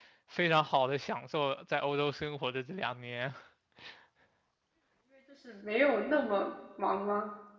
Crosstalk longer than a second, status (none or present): none